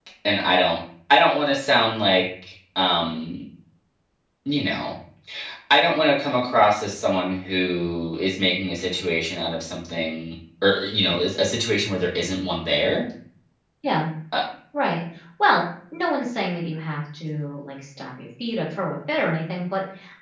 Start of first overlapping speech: none

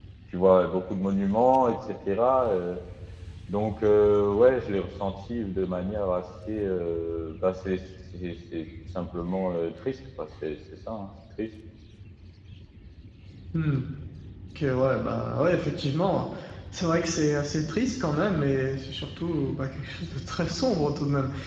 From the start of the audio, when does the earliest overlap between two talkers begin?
none

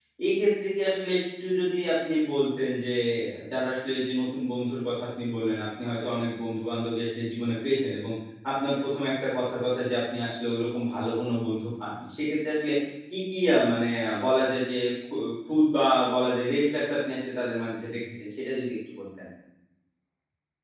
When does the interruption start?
none

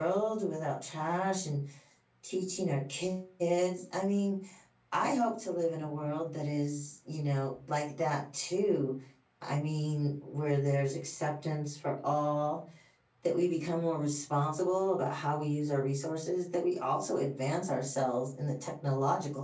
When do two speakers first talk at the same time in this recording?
none

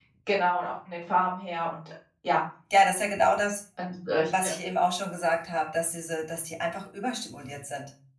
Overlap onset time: none

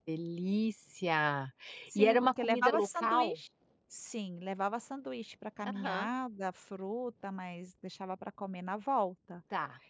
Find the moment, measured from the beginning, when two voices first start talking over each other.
2 s

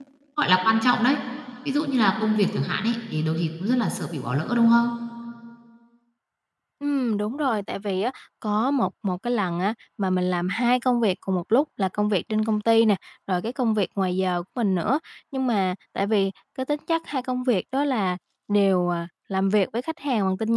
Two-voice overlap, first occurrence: none

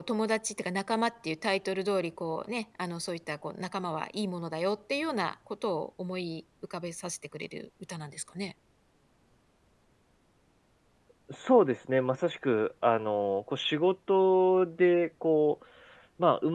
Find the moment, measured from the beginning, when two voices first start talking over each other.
none

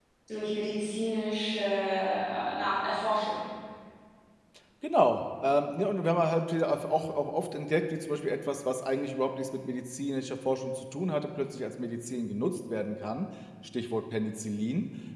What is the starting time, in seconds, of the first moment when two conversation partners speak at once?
none

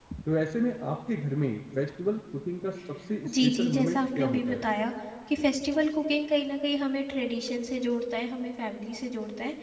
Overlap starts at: 3 s

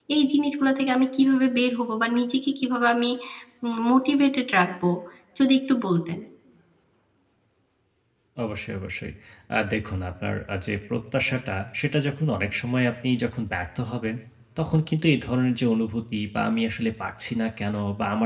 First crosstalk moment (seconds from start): none

